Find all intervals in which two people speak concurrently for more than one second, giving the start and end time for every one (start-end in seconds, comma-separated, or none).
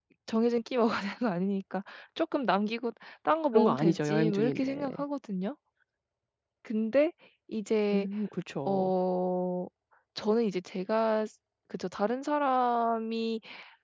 3.5-4.8